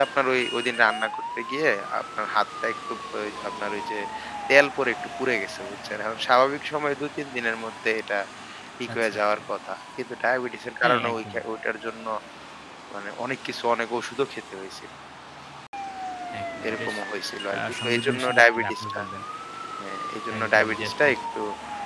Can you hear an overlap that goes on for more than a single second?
Yes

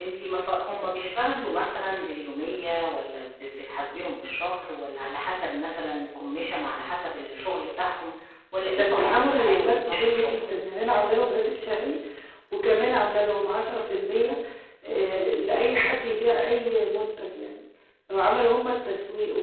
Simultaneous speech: Yes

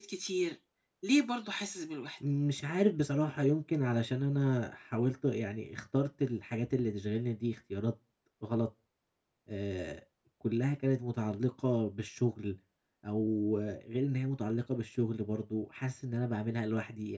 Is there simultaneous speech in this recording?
No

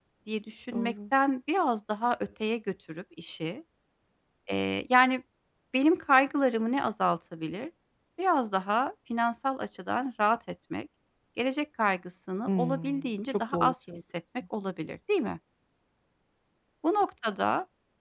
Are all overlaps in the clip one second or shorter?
No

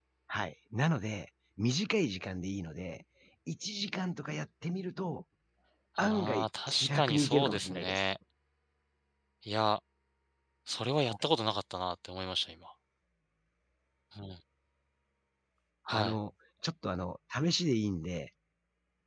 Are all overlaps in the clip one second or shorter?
No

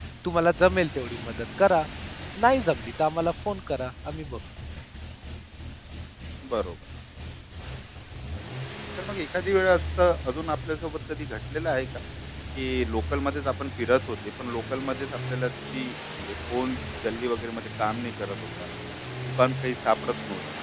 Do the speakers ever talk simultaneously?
No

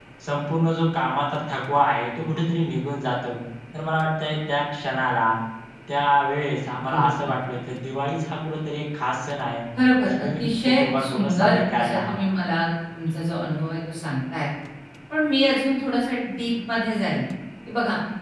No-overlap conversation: No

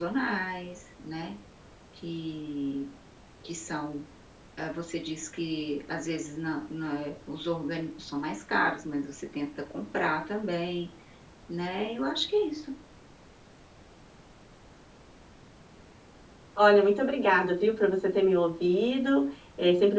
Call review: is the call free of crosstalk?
Yes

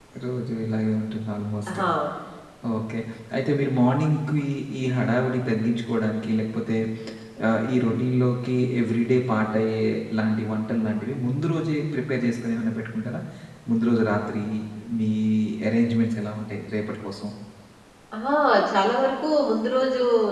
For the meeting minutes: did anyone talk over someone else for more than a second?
No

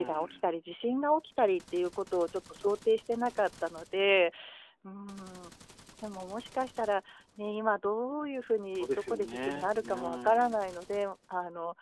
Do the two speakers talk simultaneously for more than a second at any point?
Yes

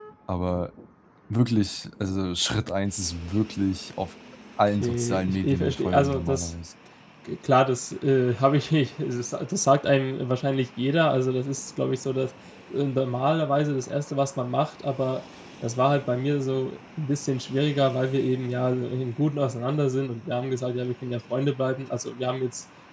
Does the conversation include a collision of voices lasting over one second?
Yes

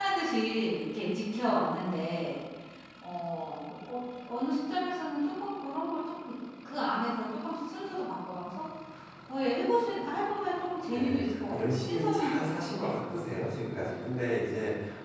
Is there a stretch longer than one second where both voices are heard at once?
Yes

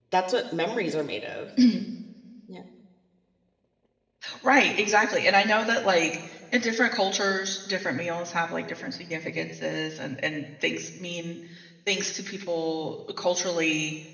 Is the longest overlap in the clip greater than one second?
No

